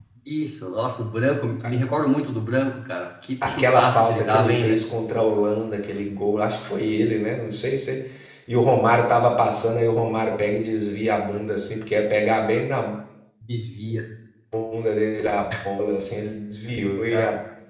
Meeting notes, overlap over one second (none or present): present